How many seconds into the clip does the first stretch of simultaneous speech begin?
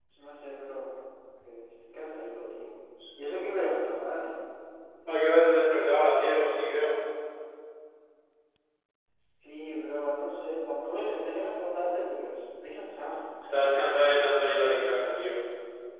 none

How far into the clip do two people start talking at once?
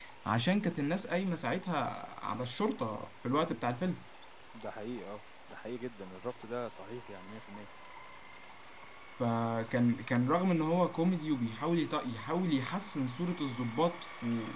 none

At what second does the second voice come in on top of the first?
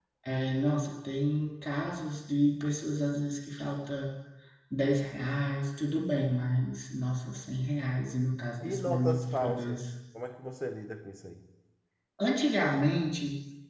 8.6 s

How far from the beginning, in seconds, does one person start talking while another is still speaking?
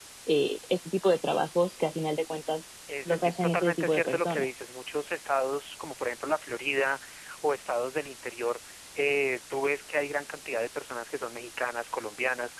2.9 s

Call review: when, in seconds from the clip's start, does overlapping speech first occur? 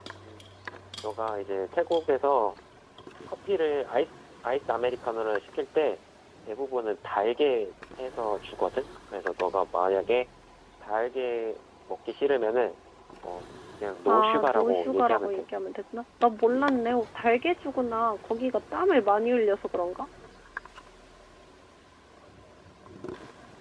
14.1 s

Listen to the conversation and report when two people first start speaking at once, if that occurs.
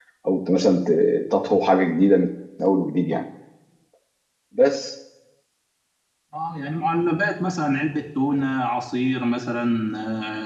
none

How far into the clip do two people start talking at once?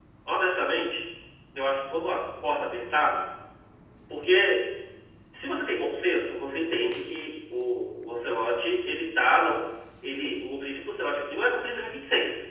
none

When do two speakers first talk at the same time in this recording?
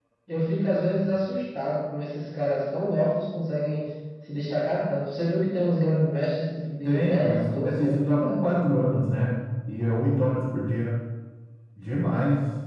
6.8 s

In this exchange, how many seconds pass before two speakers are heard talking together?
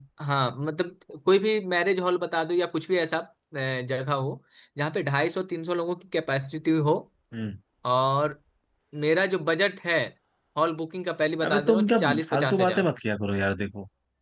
11.5 s

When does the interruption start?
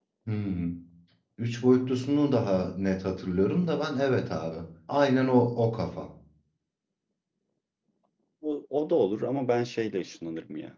none

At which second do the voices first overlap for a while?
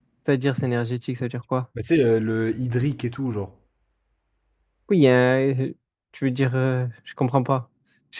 none

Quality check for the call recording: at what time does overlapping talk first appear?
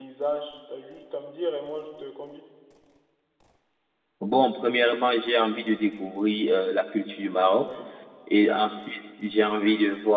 none

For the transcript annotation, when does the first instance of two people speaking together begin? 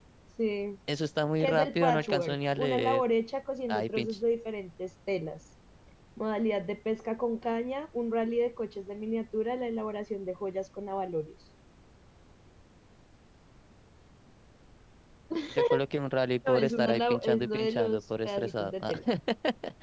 1.4 s

